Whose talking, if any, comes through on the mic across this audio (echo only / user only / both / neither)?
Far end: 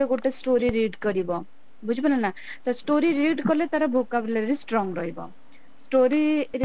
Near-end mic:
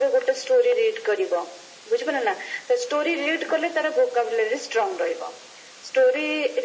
echo only